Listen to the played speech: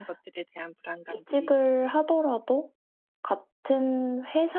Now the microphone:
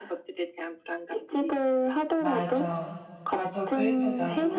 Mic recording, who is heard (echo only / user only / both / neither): both